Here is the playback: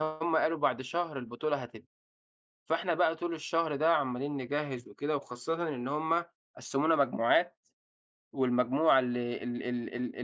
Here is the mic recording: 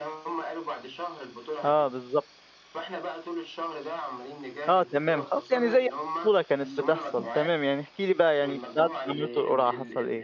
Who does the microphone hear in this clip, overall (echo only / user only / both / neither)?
both